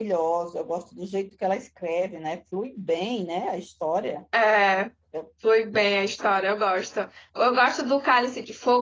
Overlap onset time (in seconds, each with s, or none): none